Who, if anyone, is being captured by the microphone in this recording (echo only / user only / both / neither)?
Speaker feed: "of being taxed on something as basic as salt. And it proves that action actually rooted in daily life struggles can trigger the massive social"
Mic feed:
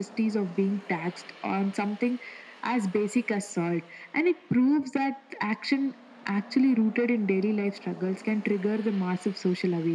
echo only